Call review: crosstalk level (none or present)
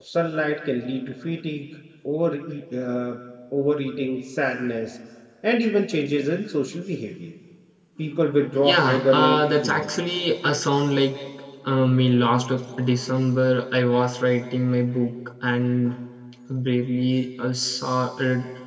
present